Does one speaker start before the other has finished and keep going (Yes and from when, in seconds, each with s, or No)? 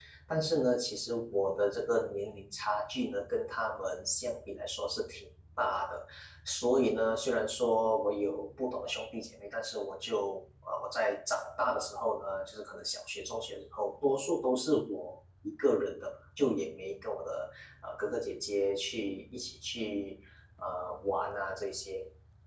No